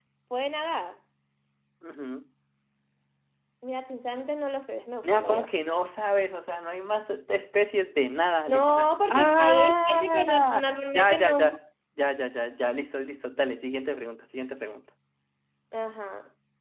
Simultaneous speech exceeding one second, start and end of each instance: 8.5-11.5

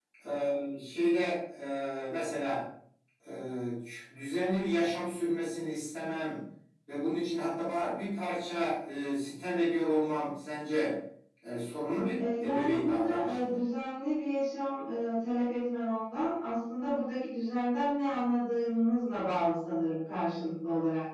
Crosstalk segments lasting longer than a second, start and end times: 12.2-13.6

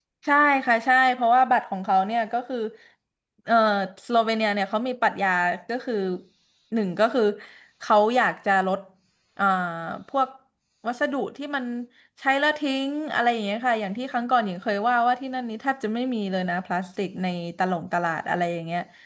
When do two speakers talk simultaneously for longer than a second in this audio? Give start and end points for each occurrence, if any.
none

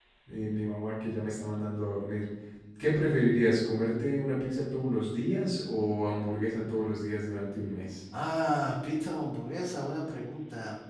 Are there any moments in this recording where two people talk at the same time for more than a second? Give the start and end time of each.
none

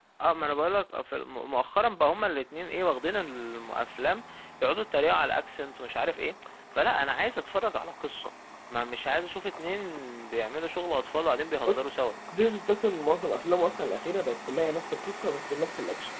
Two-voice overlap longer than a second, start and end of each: none

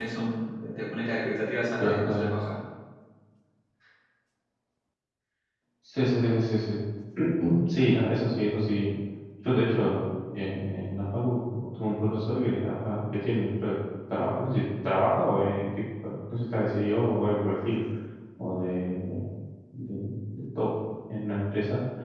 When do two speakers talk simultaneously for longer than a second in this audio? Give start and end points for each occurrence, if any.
none

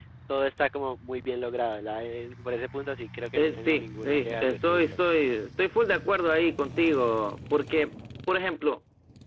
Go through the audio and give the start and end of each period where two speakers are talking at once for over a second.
3.4-5.0

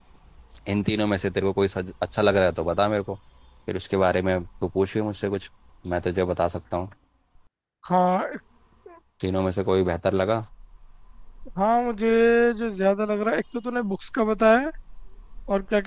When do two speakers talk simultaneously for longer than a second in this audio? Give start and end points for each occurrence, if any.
none

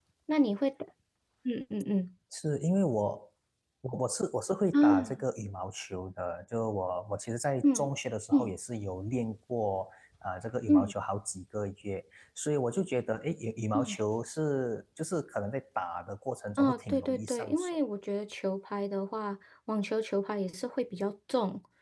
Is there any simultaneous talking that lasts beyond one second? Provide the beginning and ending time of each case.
16.6-17.8

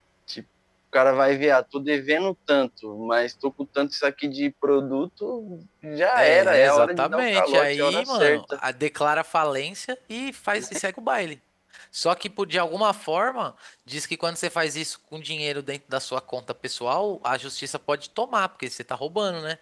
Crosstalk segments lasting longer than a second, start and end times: 6.2-8.4

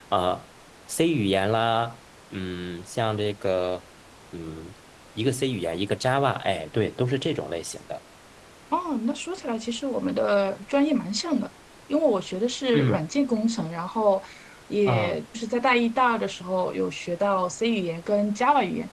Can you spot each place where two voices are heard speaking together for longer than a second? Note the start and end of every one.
none

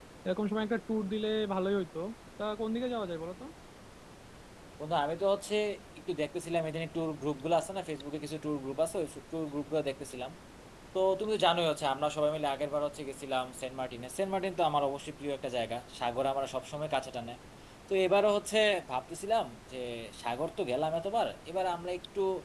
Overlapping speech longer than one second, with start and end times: none

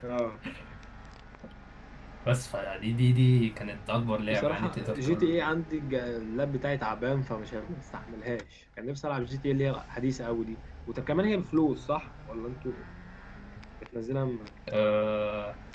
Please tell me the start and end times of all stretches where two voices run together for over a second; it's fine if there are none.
4.3-5.5

